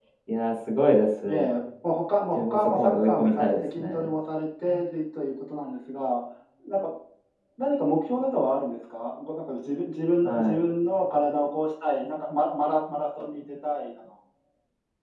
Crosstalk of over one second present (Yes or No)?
Yes